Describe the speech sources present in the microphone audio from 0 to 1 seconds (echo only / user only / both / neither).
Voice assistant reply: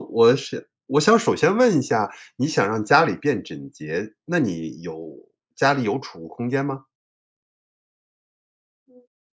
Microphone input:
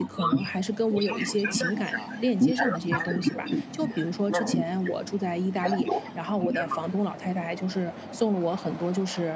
both